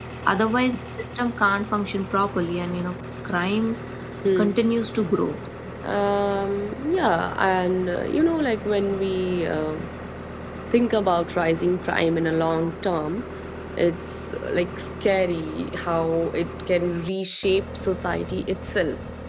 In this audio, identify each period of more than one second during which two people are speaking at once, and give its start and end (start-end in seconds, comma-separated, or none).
none